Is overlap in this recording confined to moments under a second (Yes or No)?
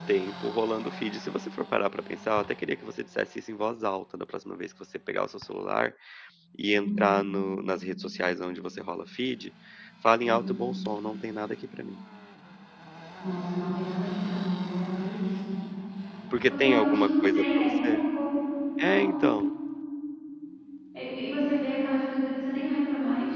No